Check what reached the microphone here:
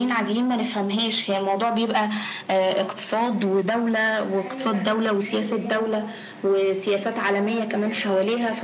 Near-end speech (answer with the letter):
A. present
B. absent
A